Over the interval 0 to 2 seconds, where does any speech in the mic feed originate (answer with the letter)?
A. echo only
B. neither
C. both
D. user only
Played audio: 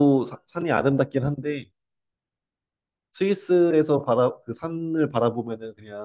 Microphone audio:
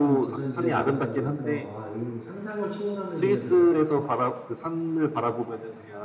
C